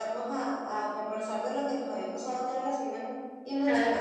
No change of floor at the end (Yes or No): Yes